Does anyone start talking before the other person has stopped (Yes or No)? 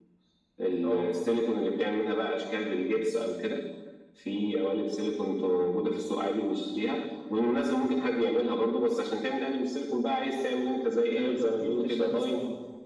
Yes